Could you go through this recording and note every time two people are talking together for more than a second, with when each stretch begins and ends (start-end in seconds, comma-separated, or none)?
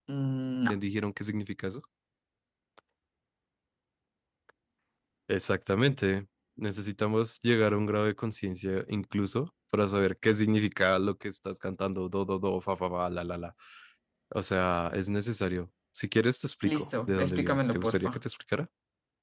16.6-18.1